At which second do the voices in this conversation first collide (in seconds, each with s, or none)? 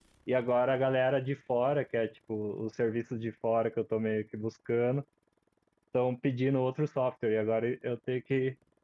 none